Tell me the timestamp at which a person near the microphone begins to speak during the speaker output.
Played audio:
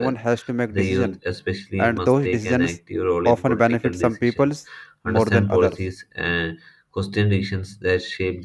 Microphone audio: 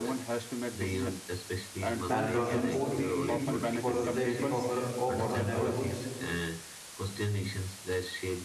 2.1 s

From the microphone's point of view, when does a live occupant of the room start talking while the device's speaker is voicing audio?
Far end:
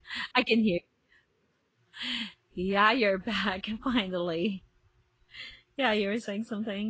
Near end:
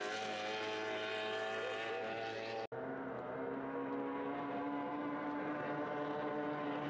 none

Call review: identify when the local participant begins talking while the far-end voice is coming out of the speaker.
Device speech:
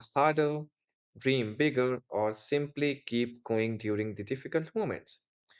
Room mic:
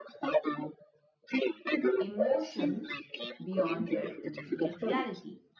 2.0 s

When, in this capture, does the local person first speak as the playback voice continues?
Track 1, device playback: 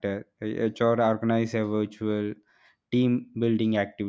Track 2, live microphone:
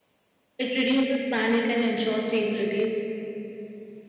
0.6 s

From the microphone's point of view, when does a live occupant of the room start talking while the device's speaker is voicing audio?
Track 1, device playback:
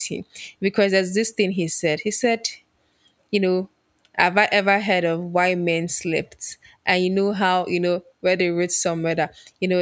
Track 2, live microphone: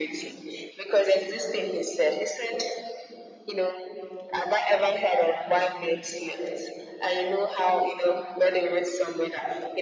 none

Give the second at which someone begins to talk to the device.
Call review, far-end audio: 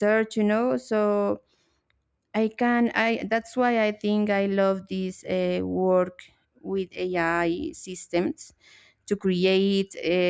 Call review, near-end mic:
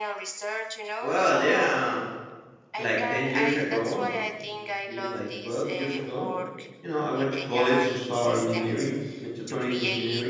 1.0 s

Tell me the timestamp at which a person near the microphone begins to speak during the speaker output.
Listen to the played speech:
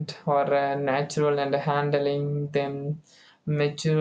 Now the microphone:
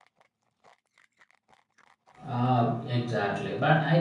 2.2 s

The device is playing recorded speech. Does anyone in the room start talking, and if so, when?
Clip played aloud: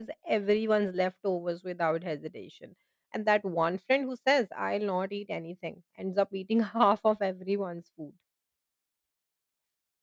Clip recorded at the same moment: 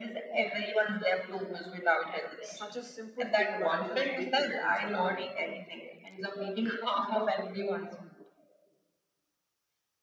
2.3 s

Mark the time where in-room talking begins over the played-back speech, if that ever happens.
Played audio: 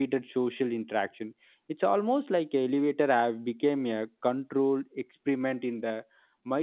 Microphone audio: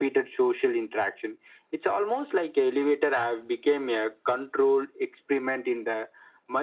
none

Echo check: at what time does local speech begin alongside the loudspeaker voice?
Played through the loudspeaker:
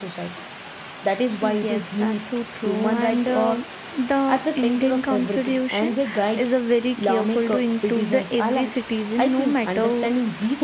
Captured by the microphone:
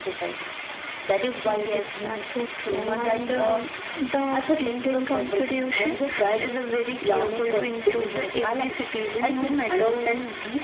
none

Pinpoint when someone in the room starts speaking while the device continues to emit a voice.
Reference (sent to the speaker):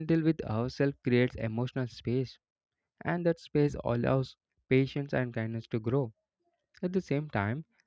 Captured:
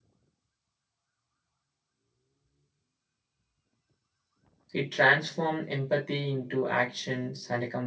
4.7 s

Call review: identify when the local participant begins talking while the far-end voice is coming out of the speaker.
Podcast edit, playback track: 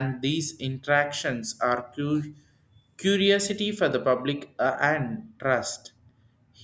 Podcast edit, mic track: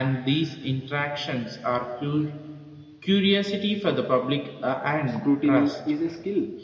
5.1 s

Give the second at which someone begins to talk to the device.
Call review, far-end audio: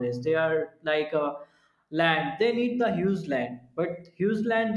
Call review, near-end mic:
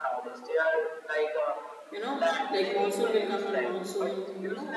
1.9 s

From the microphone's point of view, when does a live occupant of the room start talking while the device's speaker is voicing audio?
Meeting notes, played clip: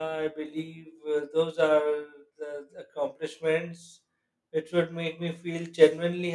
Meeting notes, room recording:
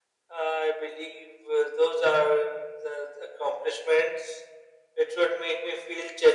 none

